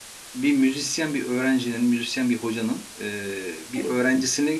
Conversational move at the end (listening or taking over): listening